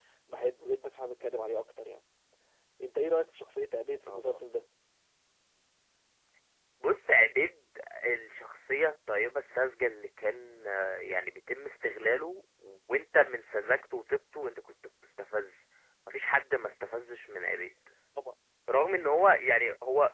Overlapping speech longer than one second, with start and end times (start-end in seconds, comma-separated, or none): none